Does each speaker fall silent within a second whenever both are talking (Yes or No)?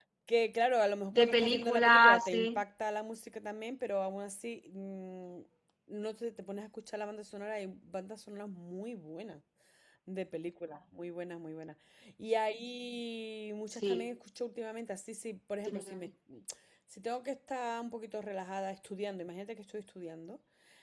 No